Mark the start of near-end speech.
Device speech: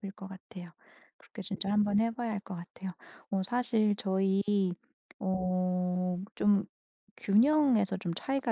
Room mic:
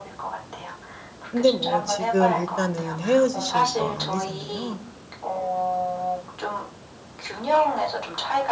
1 s

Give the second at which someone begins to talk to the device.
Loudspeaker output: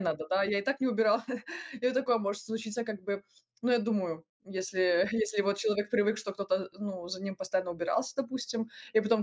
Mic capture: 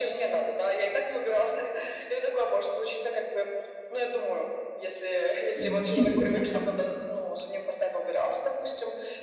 6 s

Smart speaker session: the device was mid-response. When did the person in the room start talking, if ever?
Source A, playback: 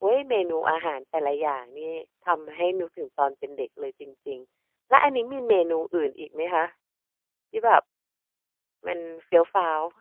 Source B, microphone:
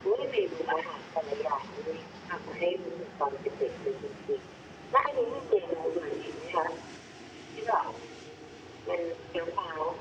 none

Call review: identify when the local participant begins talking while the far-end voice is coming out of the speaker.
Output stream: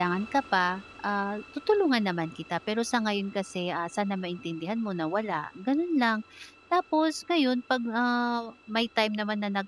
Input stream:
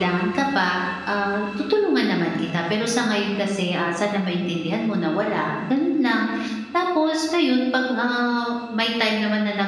none

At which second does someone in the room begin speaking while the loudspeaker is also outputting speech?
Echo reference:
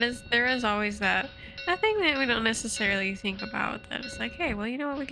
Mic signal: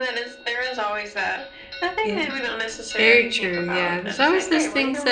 2 s

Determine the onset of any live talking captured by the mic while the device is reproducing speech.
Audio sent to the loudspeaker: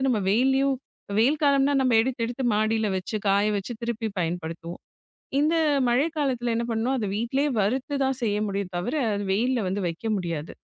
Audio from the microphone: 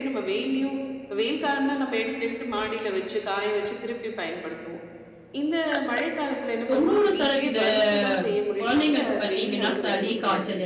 7 s

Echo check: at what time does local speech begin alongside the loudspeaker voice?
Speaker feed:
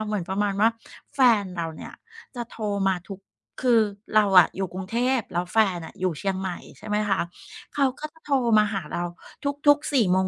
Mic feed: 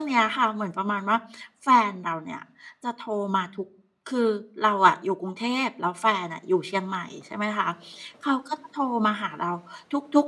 none

